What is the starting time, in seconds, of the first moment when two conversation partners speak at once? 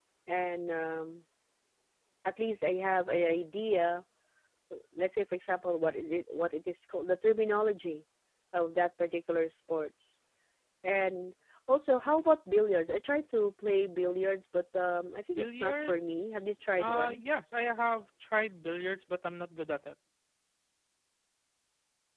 15.3 s

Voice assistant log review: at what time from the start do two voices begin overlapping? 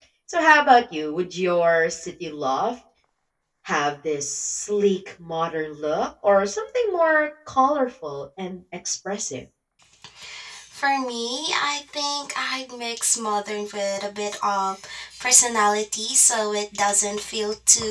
none

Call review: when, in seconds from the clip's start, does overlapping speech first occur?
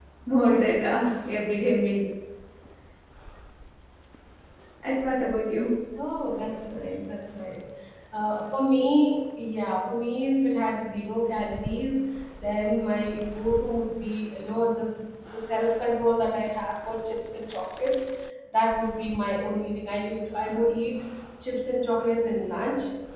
none

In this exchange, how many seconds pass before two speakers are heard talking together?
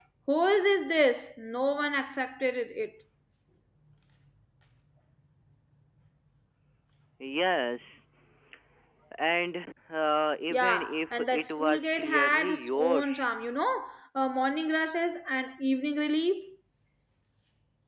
10.5 s

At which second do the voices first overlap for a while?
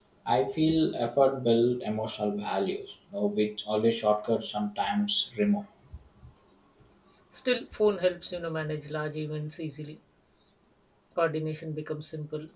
none

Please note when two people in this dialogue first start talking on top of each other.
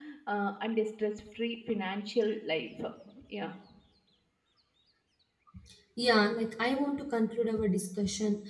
none

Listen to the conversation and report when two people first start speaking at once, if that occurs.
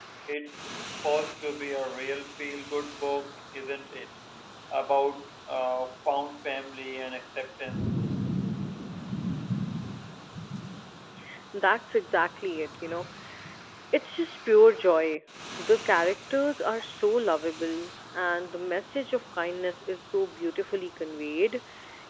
none

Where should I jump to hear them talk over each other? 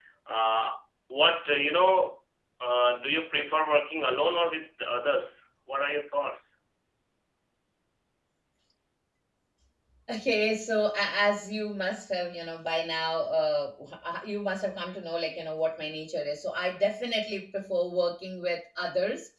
none

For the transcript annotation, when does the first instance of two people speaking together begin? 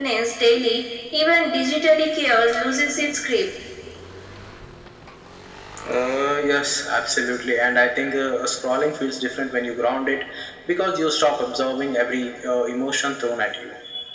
none

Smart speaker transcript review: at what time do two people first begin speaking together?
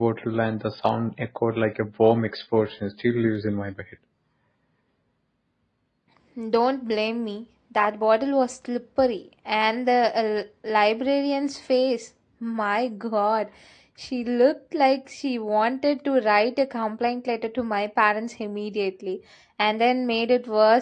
none

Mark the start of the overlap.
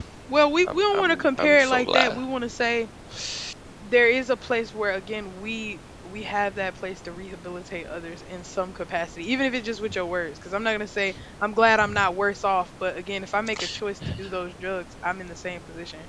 0.7 s

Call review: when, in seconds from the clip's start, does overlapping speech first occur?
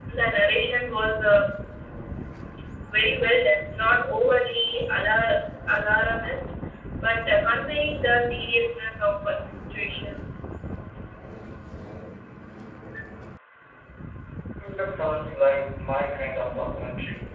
none

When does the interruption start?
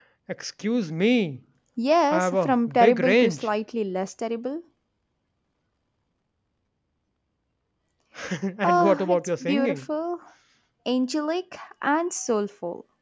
2.1 s

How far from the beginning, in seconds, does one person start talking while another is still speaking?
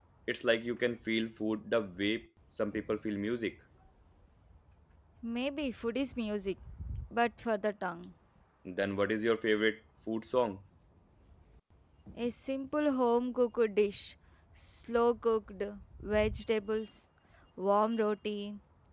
none

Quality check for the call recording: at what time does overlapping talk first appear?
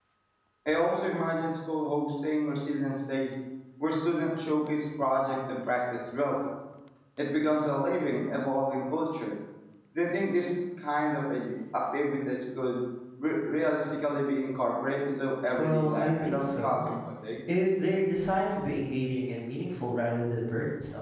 15.6 s

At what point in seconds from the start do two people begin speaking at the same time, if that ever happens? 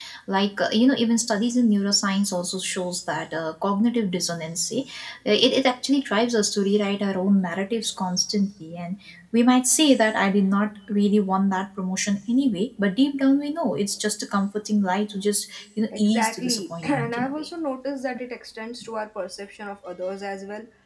15.9 s

